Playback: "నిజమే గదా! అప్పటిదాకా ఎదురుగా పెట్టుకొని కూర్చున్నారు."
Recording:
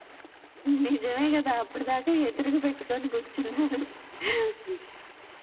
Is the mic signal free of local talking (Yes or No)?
Yes